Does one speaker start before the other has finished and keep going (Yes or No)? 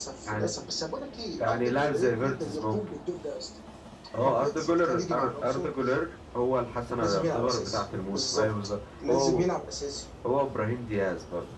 Yes